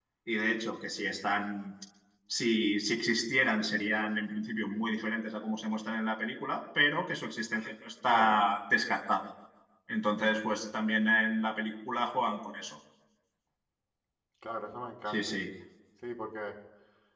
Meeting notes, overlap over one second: none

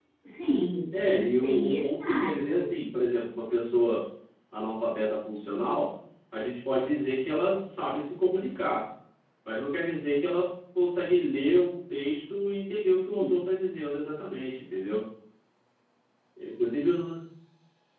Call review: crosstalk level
present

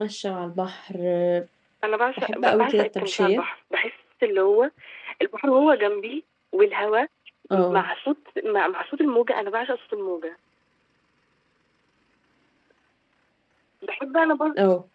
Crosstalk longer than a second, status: present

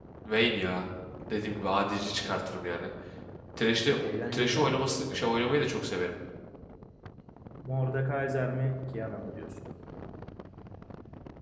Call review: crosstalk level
present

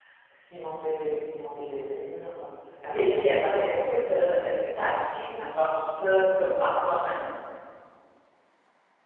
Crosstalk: present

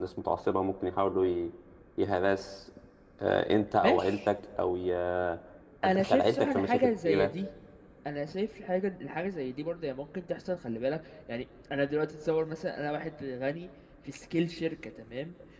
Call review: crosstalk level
present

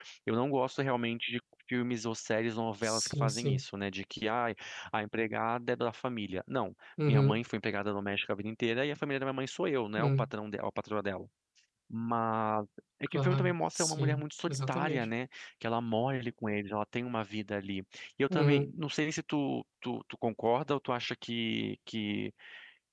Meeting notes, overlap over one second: present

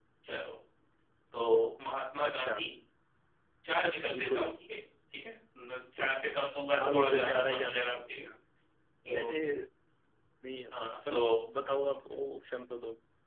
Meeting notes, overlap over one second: present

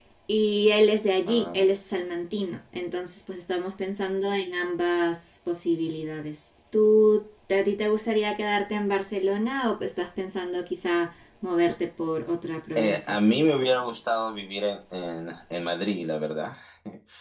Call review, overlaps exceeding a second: none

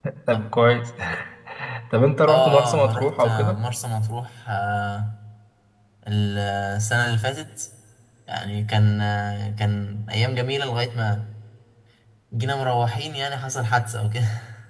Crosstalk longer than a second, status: present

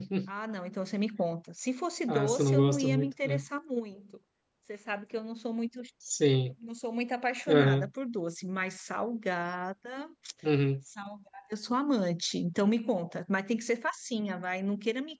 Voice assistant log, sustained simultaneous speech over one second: present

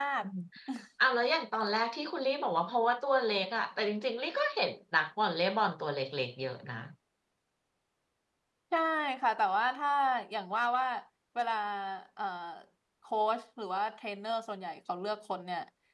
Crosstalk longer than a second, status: none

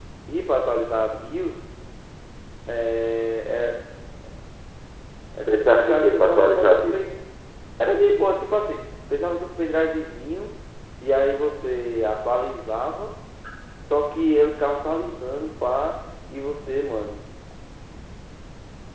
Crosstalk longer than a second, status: present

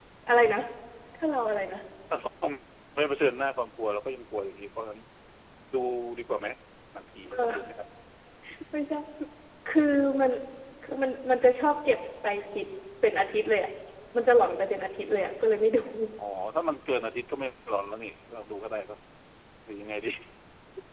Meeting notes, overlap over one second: none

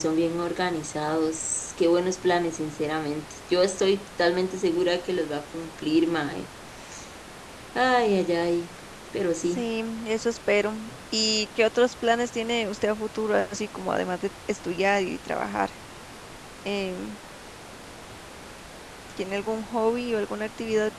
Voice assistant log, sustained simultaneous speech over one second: none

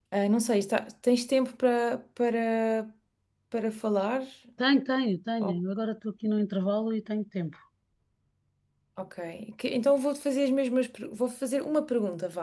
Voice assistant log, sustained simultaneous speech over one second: none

